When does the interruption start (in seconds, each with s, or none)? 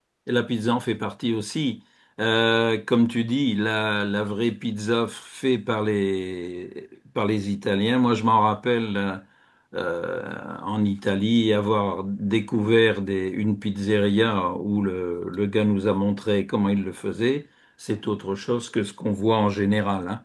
none